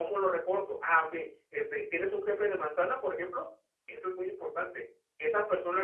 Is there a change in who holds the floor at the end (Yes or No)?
Yes